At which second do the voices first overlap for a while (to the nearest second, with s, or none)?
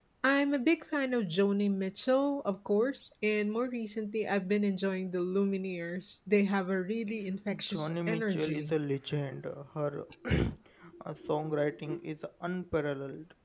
8 s